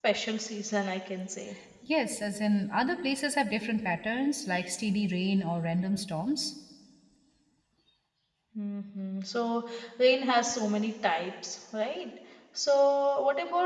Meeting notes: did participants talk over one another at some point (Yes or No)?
No